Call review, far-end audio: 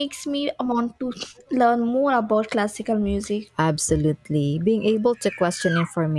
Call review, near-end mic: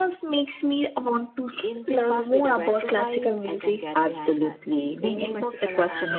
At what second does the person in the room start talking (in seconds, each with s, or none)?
1.6 s